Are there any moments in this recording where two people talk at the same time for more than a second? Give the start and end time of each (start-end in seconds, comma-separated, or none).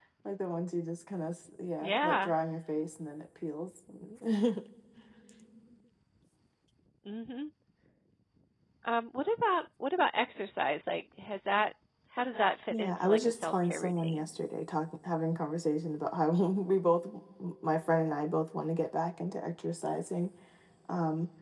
12.7-14.3